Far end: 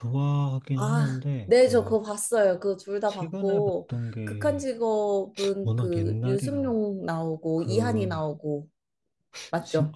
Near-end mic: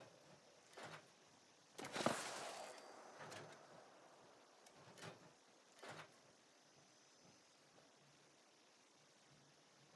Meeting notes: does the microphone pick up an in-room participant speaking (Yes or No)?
No